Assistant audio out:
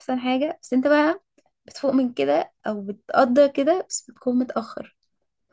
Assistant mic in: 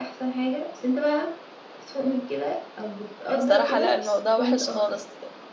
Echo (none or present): present